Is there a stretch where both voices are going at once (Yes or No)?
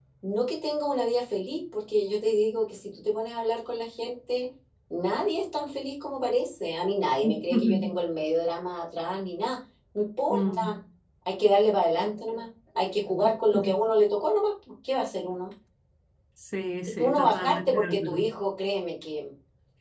Yes